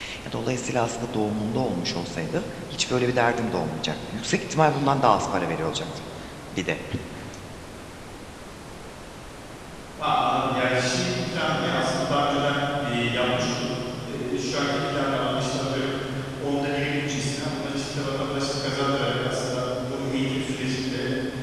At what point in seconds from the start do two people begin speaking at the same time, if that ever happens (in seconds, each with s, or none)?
none